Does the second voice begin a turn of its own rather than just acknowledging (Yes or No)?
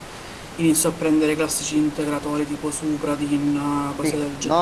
Yes